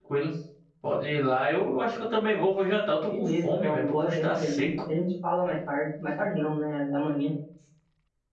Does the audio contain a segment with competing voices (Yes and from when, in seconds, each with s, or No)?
Yes, from 3.1 s